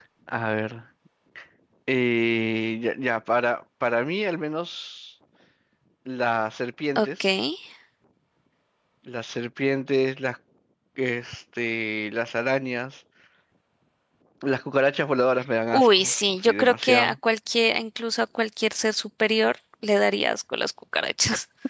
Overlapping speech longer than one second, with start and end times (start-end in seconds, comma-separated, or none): 15.7-17.1